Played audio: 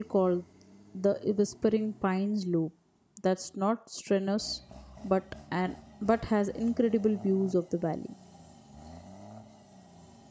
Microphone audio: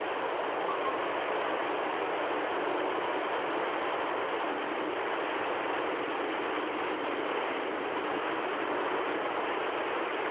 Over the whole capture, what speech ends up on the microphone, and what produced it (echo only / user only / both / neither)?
neither